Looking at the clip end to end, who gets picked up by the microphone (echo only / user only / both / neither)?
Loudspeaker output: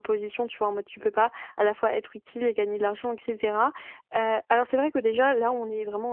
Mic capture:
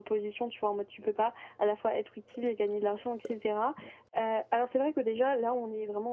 echo only